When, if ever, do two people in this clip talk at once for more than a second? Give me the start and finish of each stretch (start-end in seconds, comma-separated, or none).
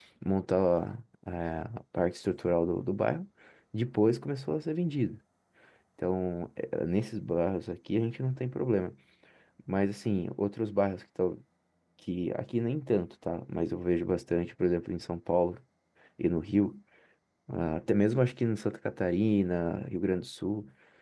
none